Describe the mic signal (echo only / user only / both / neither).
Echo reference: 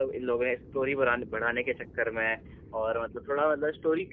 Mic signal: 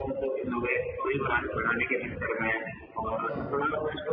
both